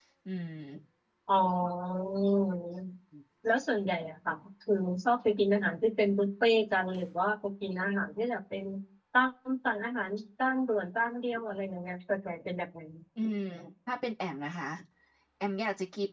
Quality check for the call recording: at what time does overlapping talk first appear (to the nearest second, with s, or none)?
none